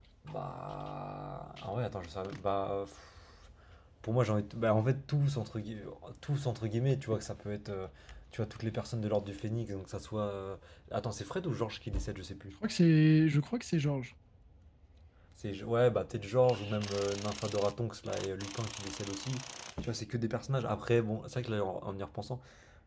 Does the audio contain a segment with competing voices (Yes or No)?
No